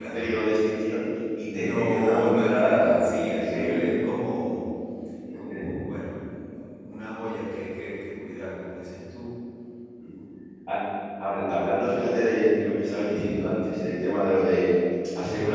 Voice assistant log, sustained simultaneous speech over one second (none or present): present